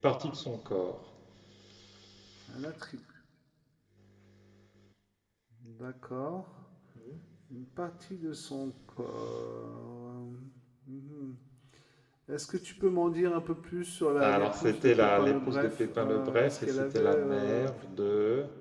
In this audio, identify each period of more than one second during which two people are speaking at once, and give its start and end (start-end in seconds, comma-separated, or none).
14.2-17.7